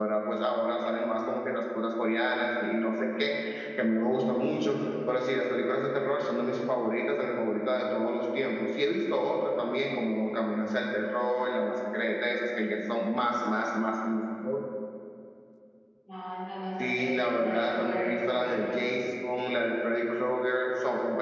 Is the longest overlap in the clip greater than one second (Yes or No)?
Yes